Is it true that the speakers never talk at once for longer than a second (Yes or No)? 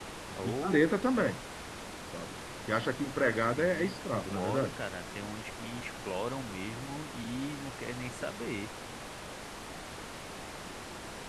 No